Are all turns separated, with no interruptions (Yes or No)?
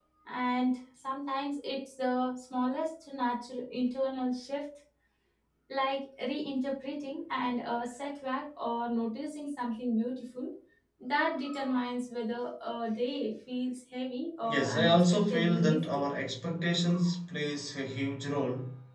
No